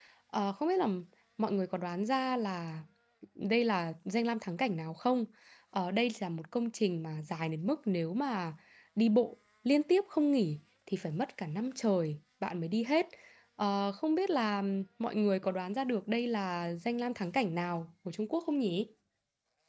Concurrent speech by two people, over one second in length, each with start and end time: none

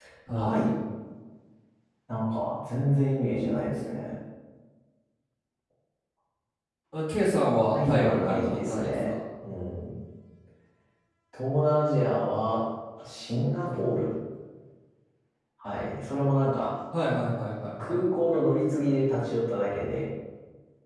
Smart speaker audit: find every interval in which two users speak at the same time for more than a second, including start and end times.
7.7-9.2

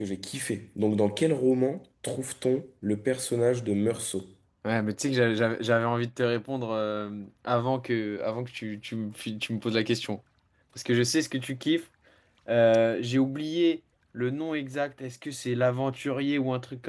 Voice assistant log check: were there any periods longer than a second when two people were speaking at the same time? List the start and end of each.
none

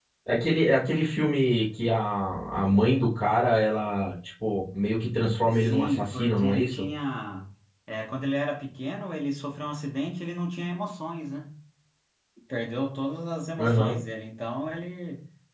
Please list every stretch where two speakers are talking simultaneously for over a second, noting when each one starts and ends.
5.5-6.8

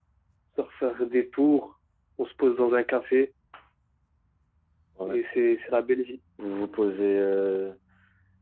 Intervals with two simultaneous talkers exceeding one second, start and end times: none

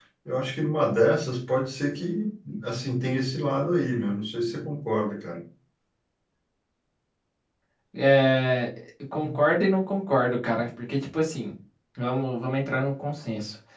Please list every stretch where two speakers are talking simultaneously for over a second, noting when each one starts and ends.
none

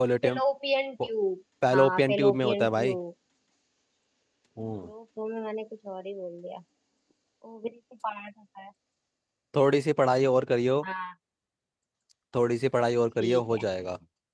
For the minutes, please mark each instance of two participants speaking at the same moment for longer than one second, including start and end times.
1.7-3.0

